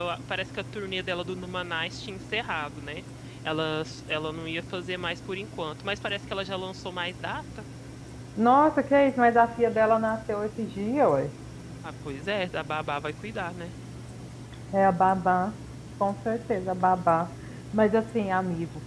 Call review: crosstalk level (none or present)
none